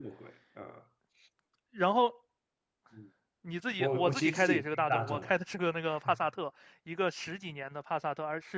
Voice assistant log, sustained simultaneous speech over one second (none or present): present